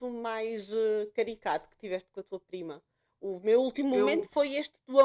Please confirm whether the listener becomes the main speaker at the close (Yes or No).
No